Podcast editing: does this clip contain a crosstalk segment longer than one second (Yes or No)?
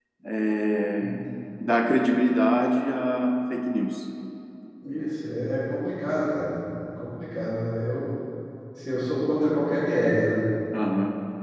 No